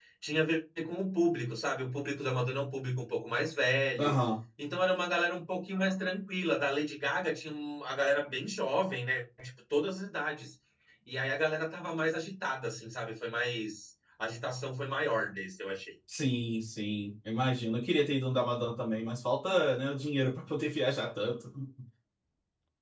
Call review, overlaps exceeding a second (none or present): none